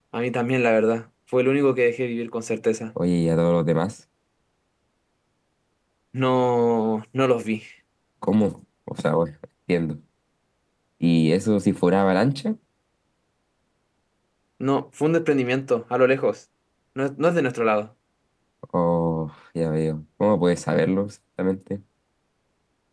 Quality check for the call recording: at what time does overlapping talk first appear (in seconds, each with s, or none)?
none